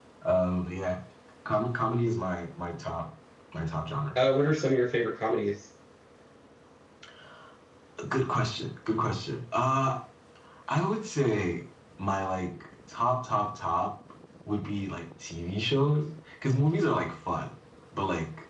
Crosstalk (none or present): none